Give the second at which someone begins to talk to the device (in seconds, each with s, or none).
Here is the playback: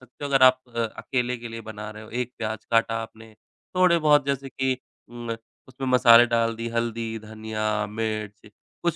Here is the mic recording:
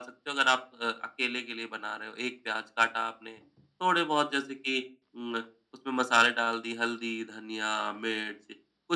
none